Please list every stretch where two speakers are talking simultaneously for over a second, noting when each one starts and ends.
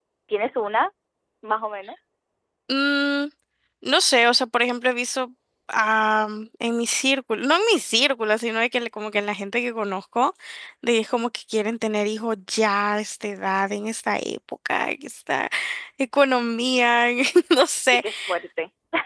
none

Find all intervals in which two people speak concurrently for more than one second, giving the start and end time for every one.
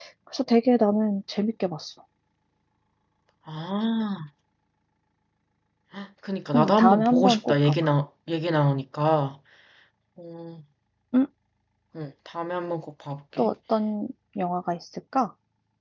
6.5-7.7

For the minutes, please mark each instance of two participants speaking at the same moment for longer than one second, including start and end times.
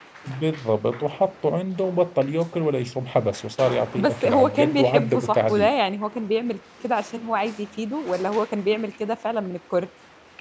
4.0-5.7

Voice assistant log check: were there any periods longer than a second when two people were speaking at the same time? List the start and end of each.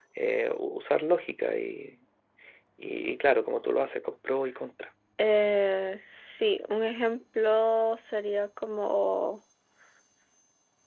none

